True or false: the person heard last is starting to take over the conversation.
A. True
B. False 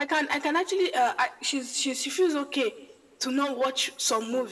B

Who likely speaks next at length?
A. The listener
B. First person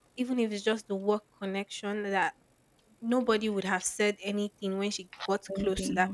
B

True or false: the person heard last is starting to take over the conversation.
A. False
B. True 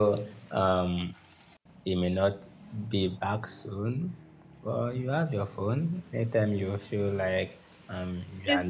A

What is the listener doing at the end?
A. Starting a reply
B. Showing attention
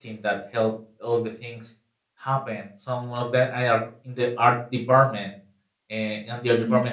B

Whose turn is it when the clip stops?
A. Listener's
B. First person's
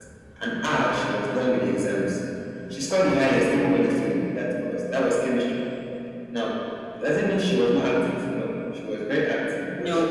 B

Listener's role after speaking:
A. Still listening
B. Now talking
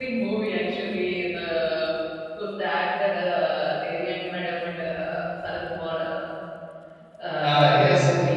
B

